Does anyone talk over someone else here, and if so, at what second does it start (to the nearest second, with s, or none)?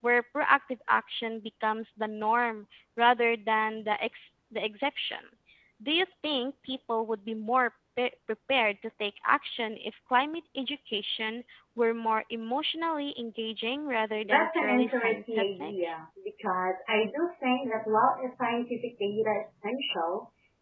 14 s